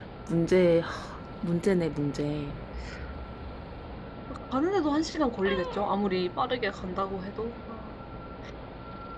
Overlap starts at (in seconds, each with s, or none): none